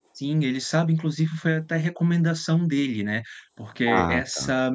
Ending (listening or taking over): listening